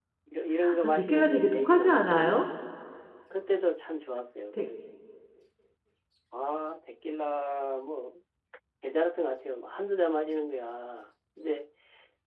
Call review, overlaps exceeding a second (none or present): present